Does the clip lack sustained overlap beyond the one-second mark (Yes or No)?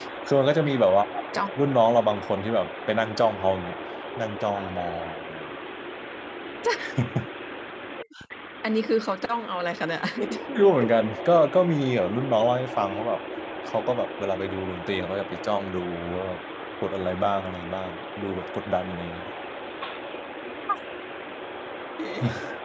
Yes